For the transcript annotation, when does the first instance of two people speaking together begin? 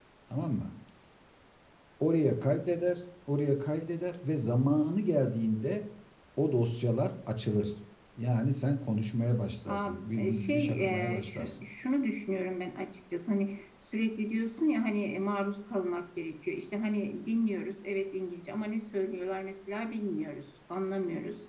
9.7 s

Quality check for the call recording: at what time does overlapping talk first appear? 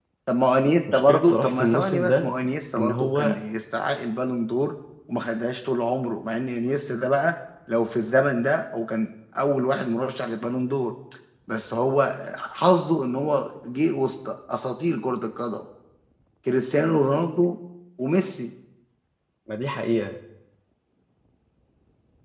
0.9 s

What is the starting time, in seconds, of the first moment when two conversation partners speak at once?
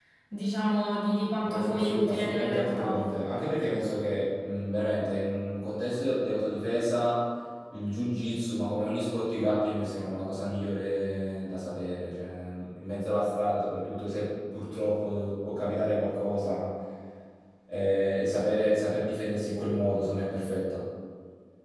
1.4 s

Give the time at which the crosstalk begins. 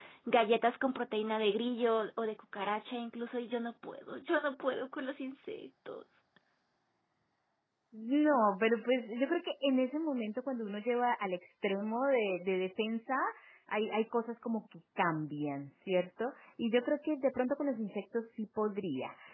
none

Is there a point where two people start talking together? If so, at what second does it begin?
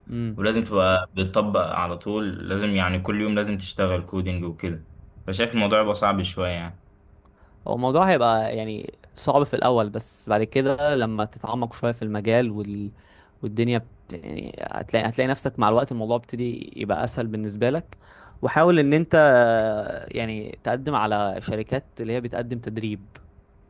none

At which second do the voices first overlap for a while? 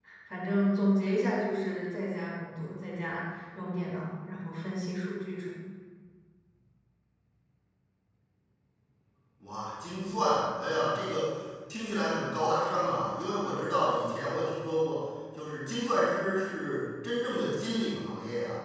none

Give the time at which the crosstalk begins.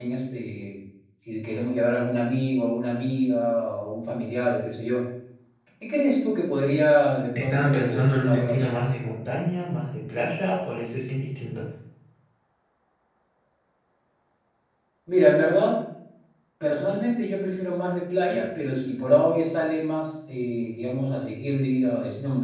7.4 s

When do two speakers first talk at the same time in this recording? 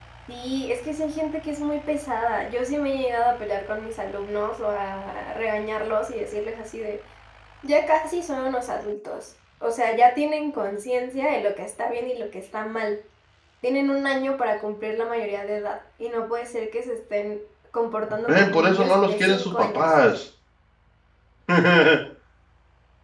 18.3 s

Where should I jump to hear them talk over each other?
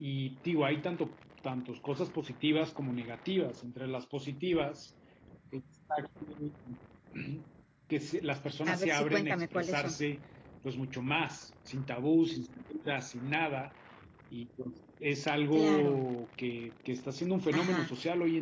8.7 s

